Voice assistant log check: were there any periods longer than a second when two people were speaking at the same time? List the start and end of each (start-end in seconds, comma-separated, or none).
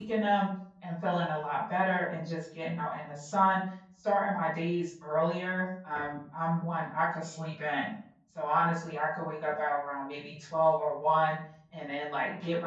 none